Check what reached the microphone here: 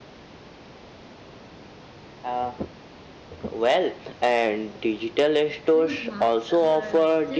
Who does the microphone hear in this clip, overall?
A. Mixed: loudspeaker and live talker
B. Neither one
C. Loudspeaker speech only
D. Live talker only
A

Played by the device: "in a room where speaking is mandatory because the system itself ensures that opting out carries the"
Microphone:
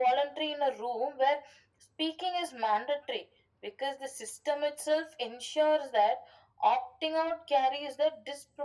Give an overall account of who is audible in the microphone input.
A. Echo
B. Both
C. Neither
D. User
A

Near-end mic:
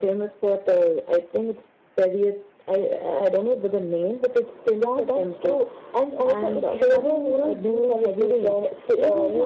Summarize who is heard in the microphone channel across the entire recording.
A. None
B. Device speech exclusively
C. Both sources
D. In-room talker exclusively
C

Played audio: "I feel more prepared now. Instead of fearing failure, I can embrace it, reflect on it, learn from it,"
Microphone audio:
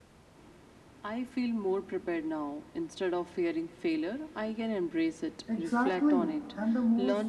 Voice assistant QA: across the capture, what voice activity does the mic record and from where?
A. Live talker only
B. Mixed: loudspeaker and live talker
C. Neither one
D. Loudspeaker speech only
B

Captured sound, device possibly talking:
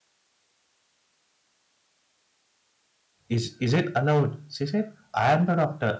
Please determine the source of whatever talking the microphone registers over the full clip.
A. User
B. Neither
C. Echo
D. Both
A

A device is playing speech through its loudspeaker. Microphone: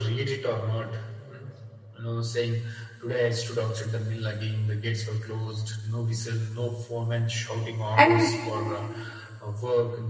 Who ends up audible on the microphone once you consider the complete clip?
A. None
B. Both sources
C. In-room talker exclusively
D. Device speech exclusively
B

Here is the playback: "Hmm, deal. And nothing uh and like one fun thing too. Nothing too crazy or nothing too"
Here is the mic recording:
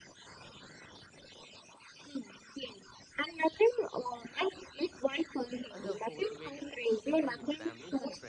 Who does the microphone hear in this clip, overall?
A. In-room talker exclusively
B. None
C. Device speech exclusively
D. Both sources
D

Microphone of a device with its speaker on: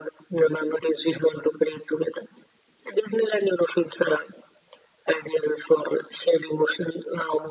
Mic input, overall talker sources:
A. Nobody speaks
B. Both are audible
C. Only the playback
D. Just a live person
C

